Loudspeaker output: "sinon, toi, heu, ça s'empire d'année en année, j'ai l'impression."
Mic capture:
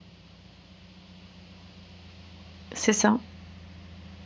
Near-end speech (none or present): present